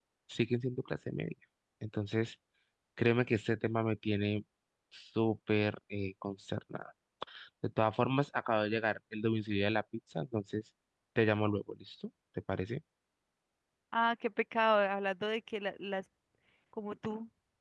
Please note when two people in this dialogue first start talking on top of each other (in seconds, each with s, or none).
none